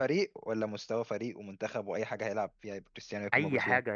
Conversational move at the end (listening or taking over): taking over